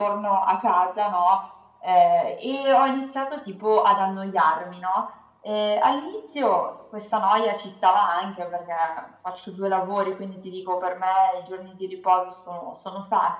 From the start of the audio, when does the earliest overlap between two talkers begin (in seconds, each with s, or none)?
none